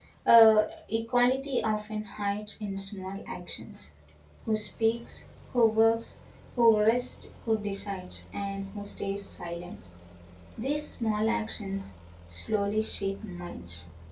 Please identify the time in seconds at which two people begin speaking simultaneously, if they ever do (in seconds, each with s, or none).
none